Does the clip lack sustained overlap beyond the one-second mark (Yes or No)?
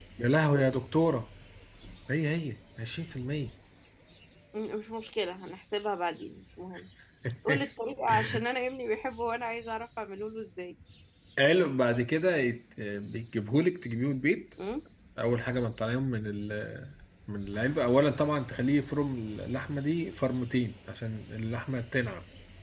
Yes